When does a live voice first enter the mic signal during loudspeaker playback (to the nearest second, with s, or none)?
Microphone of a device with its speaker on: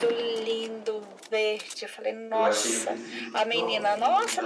2 s